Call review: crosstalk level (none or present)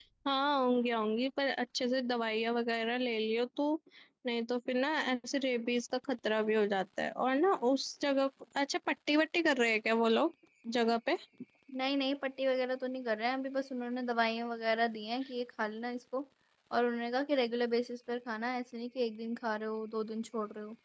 none